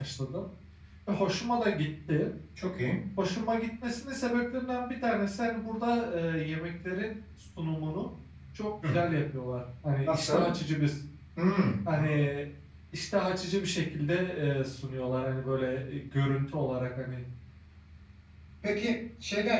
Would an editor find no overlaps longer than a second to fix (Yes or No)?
Yes